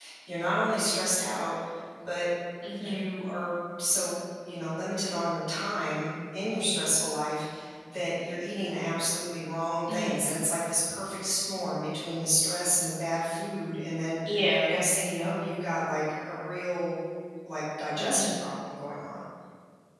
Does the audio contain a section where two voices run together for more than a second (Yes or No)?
No